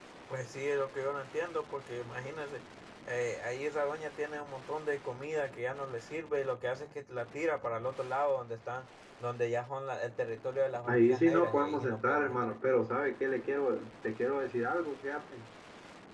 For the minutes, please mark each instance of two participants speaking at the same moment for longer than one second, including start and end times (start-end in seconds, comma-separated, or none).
10.9-12.5